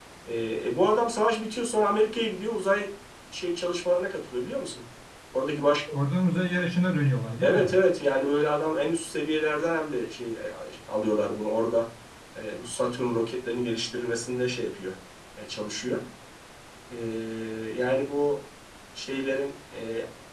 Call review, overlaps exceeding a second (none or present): none